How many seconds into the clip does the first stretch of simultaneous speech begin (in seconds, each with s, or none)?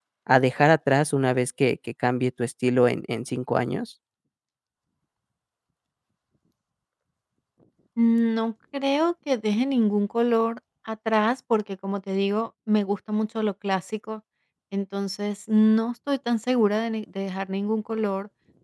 none